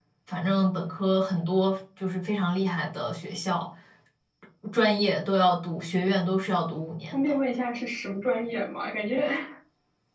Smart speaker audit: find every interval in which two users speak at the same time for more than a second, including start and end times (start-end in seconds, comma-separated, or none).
none